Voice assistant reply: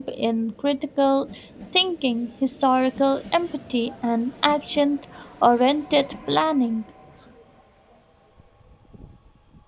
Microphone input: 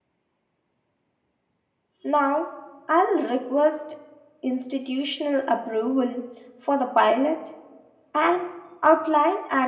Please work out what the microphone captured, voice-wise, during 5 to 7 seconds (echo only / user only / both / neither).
user only